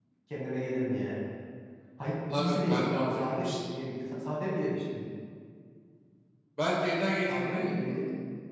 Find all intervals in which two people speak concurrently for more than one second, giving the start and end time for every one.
2.4-3.7

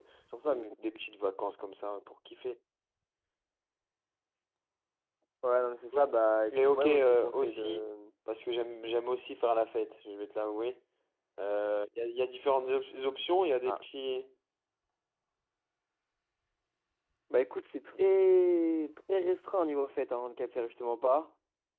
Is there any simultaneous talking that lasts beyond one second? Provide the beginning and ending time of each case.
6.5-7.8

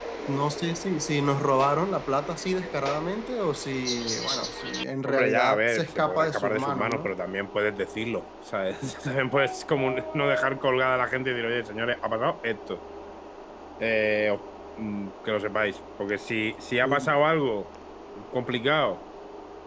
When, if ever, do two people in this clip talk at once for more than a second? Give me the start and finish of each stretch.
5.1-7.1

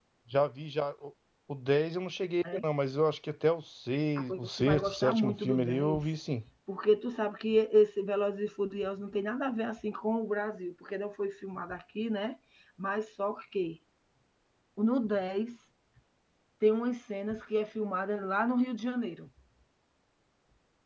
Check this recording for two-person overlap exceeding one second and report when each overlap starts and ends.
4.2-6.2

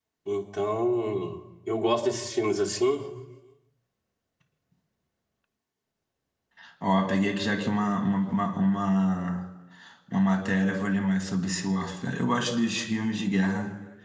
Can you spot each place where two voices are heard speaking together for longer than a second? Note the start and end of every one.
none

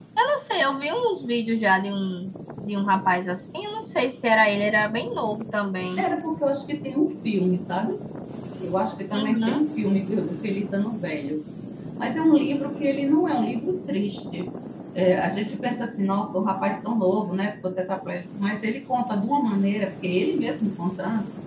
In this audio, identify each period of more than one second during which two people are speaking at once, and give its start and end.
none

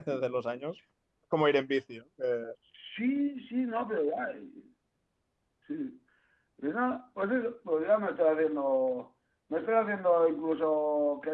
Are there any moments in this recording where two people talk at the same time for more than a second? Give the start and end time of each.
none

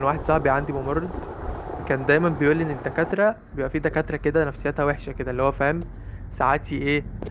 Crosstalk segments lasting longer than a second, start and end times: none

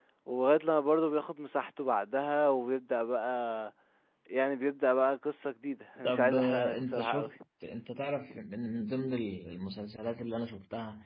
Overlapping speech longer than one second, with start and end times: 6.0-7.3

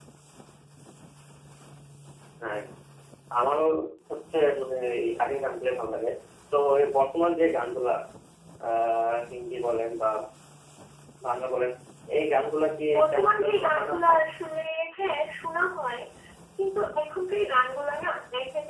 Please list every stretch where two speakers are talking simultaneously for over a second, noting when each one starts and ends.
13.0-14.2

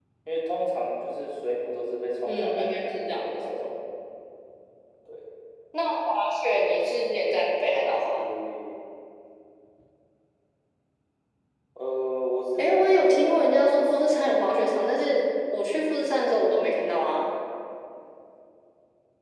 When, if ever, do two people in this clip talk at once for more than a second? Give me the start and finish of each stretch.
2.3-3.7, 12.6-13.8

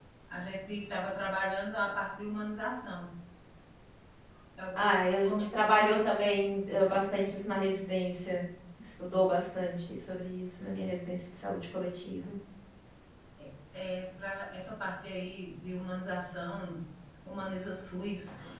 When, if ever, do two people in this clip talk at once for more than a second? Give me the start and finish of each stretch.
none

